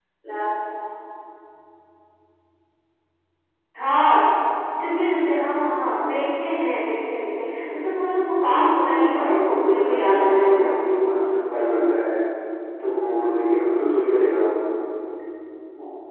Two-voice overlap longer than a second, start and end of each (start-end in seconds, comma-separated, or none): 8.4-10.7